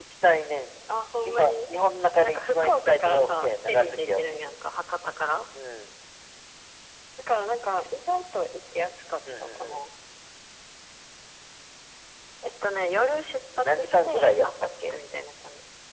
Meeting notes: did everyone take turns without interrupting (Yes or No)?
No